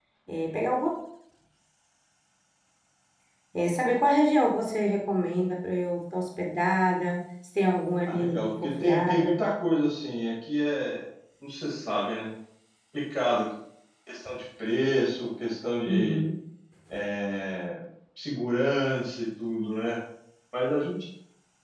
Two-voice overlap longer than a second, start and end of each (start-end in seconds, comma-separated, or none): 8.0-9.4